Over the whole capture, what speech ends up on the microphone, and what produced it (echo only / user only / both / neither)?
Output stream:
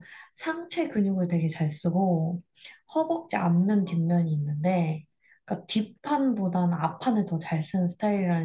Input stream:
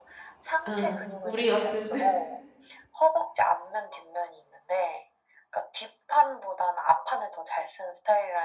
both